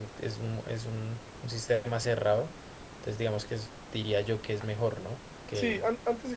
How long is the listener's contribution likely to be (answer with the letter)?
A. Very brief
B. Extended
B